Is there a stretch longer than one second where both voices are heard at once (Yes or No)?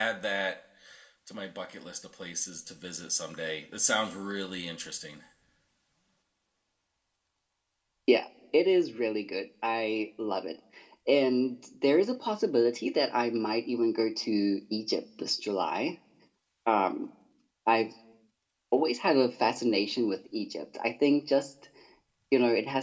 No